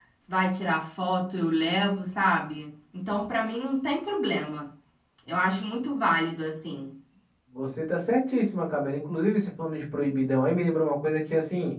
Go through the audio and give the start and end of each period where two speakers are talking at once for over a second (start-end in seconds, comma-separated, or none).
none